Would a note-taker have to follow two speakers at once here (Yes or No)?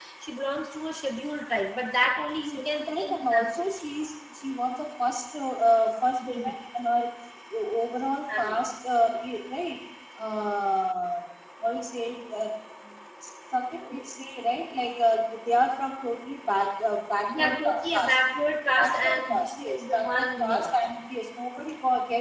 Yes